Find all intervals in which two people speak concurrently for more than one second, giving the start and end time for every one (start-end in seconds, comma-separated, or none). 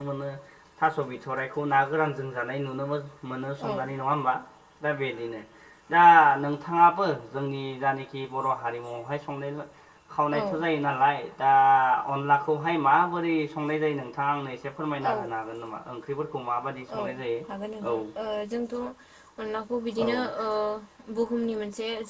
none